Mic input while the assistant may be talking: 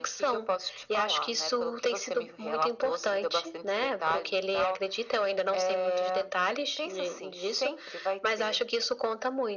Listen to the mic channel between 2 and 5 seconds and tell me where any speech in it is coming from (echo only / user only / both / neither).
echo only